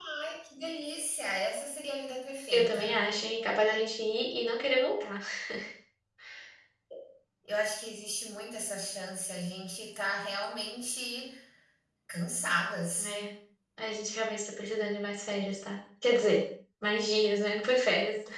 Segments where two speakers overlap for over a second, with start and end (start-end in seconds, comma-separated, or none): none